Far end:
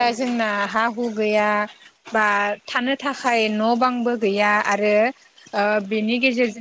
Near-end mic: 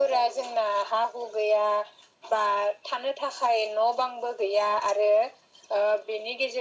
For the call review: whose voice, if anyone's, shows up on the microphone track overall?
echo only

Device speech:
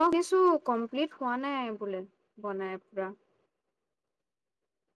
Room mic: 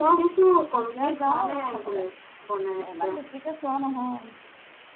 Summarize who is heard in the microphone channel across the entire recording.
both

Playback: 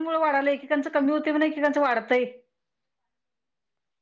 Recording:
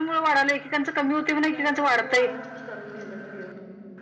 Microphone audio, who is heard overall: both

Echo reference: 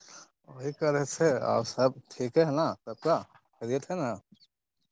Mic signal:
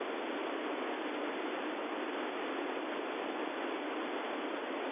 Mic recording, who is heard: neither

